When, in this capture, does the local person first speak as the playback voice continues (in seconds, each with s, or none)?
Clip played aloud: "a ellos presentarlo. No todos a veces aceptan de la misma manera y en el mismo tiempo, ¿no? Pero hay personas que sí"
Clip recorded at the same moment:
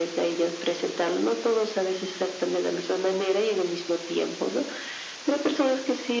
none